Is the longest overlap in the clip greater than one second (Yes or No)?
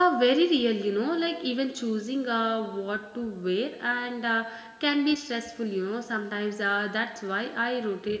No